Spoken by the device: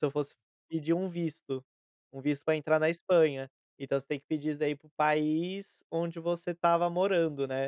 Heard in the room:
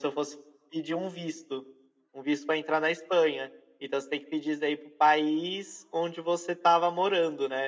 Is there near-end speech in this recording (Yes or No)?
No